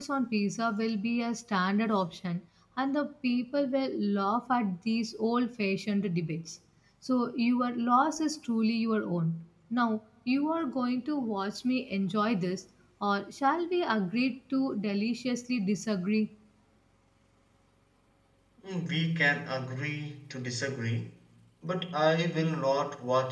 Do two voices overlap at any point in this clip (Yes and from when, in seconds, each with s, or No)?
No